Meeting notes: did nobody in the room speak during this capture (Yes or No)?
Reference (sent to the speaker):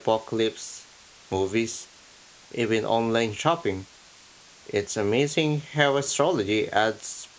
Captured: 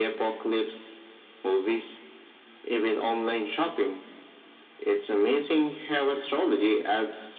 Yes